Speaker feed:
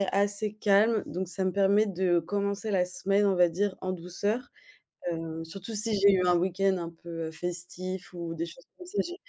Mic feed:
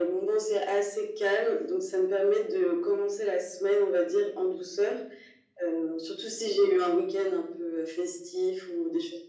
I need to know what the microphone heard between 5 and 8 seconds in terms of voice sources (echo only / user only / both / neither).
echo only